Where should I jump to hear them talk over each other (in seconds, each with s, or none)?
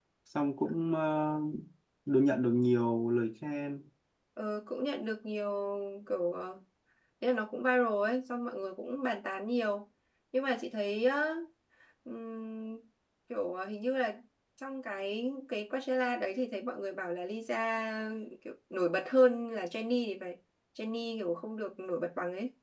none